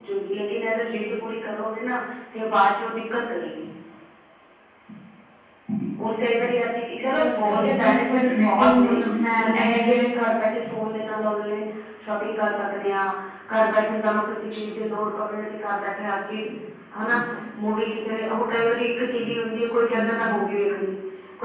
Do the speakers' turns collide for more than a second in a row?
Yes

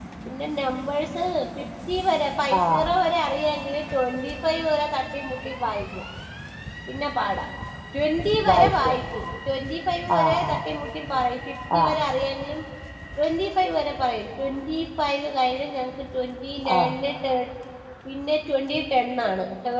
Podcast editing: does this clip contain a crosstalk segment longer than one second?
No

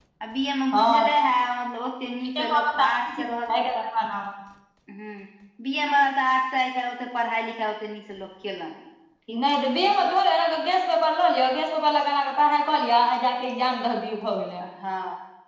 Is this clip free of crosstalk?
No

